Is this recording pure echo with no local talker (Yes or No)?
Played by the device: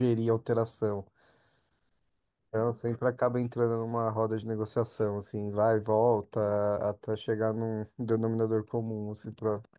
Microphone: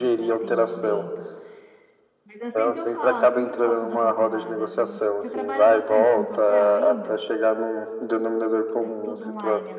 No